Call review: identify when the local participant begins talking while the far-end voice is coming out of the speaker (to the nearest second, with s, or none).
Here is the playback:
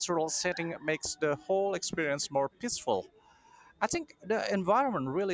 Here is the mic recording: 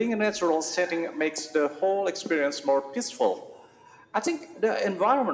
none